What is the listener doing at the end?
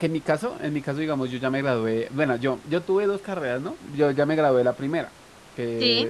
listening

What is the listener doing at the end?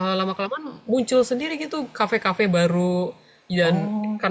listening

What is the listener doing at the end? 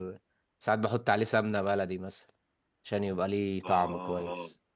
taking over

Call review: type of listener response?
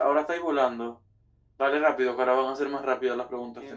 taking over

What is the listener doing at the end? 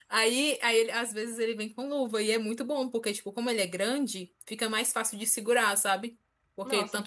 listening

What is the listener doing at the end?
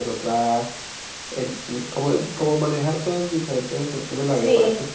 listening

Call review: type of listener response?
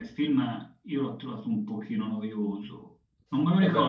listening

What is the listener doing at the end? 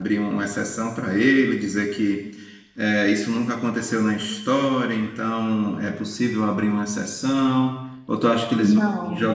listening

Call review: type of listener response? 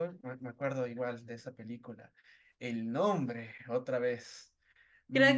taking over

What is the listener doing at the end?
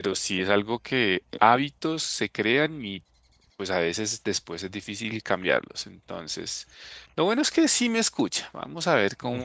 listening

